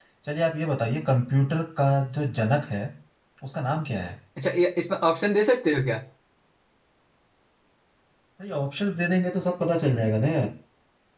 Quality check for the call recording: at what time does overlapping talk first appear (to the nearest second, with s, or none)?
none